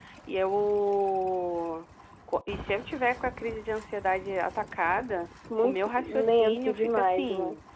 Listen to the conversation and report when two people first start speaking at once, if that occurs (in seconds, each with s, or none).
5.5 s